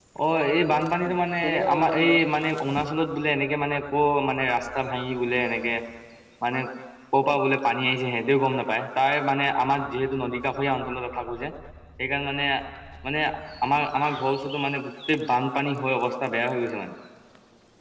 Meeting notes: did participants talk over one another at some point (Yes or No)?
Yes